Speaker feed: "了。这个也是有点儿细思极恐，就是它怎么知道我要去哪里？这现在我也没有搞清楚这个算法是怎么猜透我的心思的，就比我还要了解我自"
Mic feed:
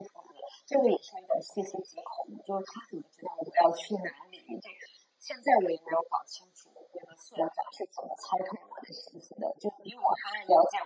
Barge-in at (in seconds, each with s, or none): none